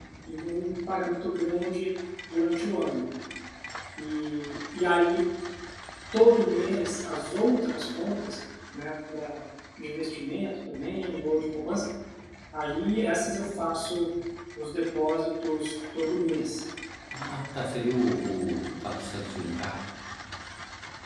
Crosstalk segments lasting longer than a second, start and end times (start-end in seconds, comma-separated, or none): none